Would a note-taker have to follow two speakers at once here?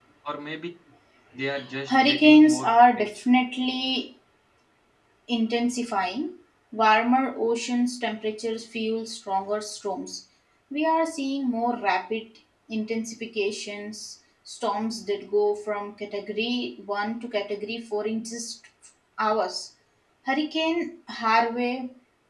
Yes, from 1.9 s

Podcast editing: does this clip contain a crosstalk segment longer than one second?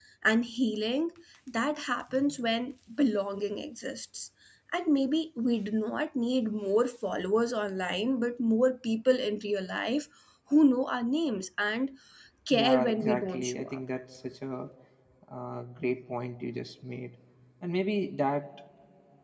Yes, from 12.5 s

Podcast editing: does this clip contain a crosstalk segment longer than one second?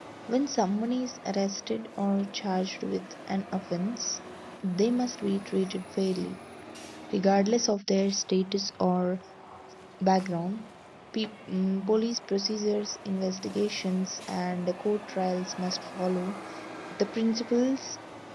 No

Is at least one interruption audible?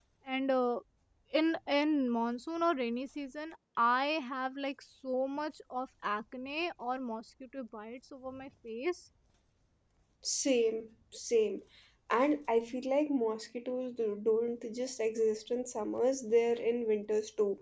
No

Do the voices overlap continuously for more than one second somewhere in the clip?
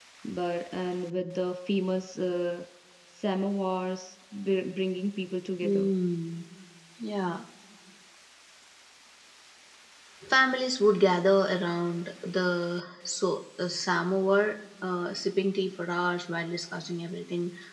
No

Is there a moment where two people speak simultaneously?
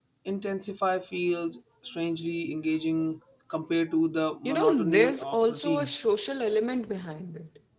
Yes, from 4.5 s

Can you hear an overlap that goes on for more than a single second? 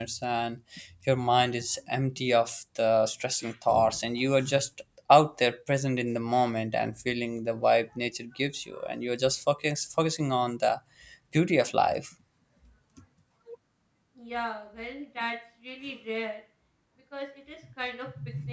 No

